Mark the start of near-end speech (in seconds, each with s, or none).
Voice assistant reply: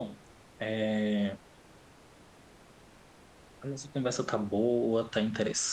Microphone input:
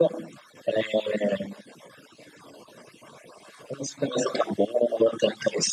none